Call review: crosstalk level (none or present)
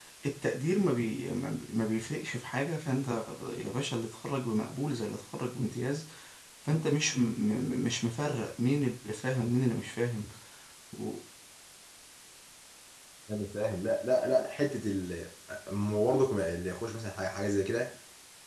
none